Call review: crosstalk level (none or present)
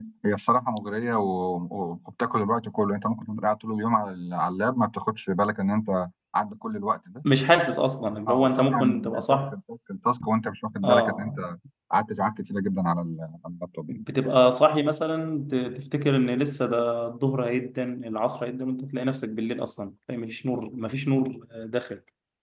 present